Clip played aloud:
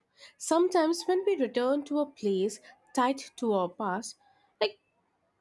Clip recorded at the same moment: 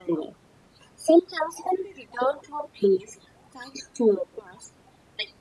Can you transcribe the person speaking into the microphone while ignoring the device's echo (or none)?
none